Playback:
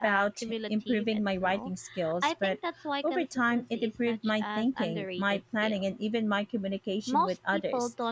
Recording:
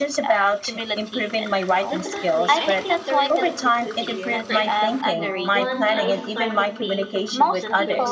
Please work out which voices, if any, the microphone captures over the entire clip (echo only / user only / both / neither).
both